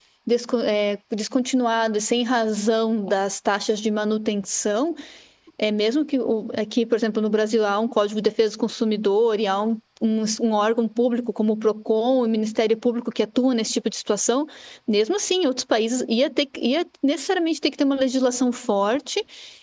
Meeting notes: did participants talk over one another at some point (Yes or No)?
No